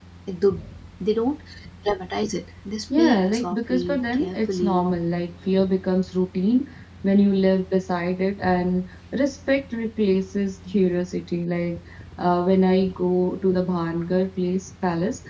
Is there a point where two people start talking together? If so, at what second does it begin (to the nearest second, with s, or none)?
3 s